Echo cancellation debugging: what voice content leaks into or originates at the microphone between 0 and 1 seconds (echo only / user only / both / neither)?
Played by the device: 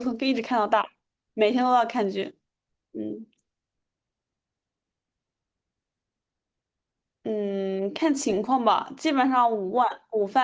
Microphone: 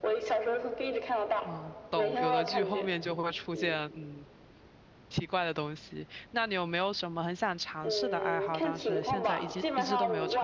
echo only